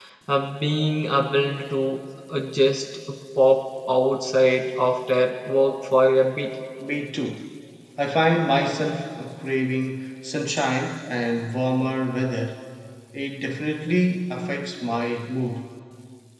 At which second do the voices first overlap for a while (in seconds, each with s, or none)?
none